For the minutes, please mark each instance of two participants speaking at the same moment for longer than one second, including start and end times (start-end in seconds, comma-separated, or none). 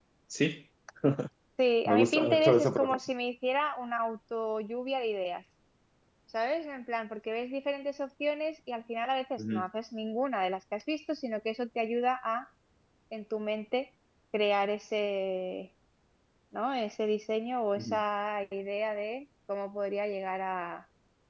1.9-3.1